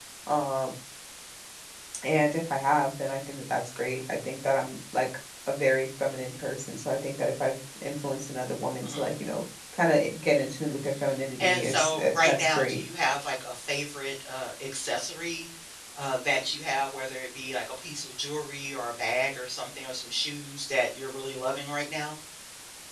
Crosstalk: present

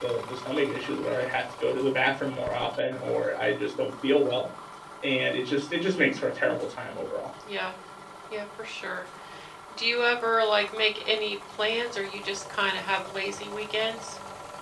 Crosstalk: none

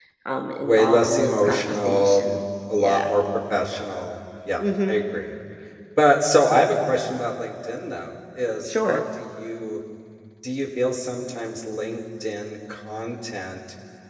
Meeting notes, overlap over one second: present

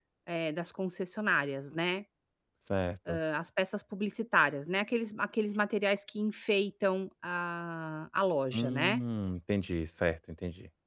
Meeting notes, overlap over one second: none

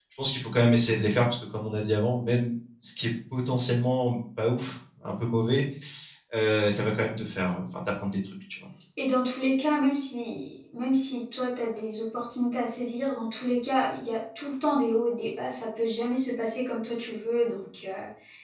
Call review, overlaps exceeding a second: none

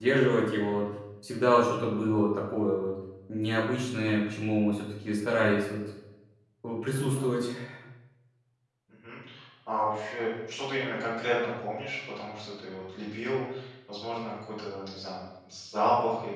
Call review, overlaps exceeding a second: none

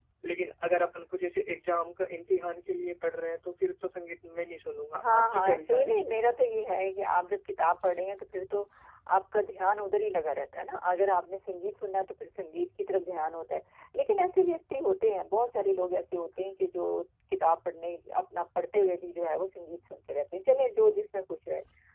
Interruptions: present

